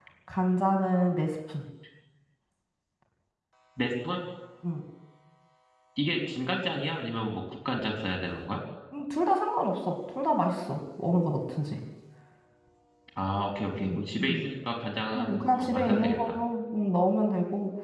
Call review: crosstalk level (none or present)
present